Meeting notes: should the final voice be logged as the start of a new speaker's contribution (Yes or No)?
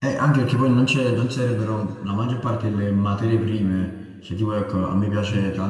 No